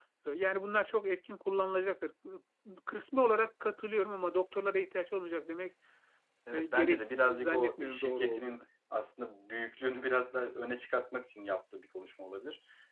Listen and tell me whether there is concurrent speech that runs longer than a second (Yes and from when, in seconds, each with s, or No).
Yes, from 6.5 s